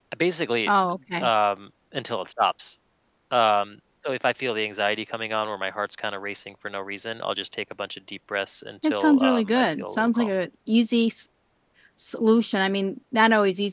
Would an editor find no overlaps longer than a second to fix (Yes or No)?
No